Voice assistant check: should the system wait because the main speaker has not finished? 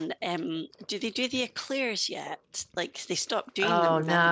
No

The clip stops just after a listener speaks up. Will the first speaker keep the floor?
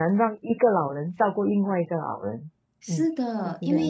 No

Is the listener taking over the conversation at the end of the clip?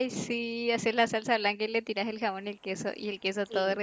Yes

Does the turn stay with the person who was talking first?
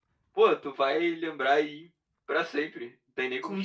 No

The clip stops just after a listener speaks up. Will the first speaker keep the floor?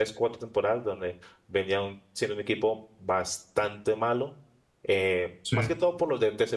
Yes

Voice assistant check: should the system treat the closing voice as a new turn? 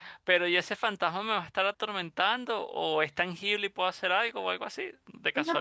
Yes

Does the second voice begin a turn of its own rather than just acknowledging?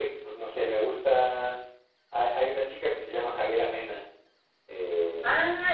Yes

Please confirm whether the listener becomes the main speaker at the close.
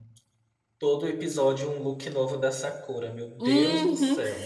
Yes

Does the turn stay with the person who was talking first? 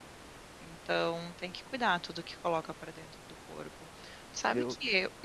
Yes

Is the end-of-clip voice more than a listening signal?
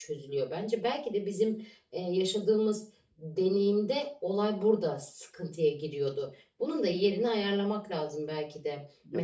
Yes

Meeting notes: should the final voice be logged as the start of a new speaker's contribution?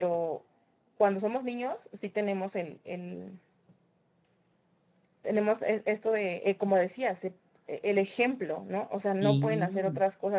No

